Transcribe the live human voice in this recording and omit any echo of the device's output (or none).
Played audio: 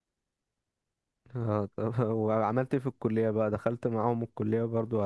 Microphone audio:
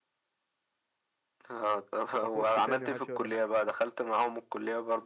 واخش تاني محدش هيقول لي حاجه